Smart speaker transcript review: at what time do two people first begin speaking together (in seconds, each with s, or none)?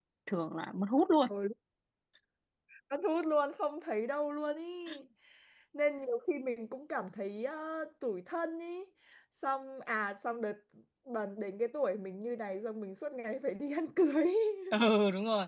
none